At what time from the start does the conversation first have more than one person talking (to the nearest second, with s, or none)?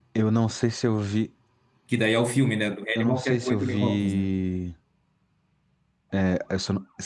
3 s